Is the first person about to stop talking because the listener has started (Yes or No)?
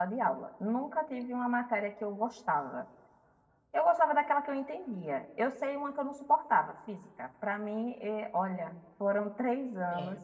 No